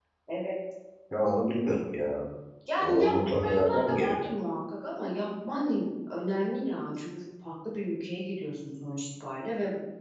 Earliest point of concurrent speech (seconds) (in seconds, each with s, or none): 2.8 s